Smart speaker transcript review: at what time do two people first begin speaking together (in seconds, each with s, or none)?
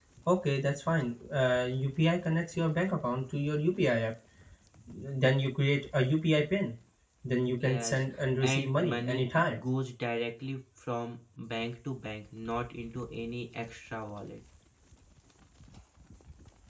7.6 s